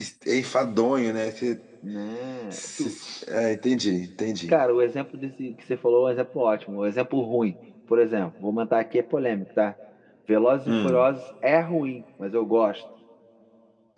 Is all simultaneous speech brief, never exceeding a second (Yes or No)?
Yes